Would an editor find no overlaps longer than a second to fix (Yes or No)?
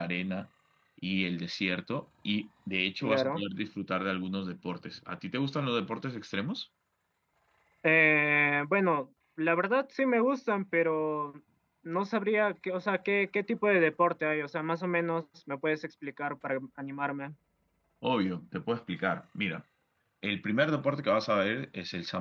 Yes